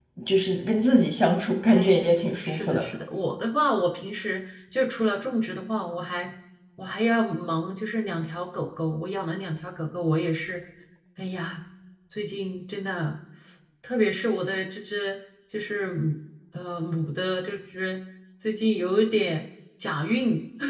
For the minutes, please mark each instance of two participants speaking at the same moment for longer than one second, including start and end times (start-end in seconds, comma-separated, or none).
1.6-2.9